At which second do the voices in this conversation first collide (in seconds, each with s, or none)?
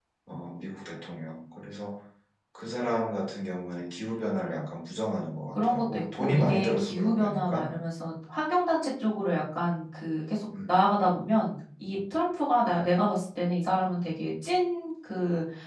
5.5 s